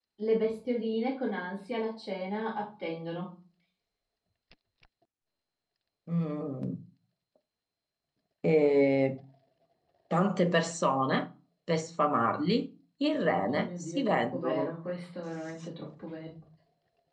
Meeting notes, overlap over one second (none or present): present